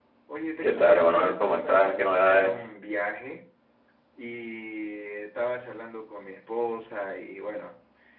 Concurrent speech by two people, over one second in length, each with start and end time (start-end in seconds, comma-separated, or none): 0.6-2.6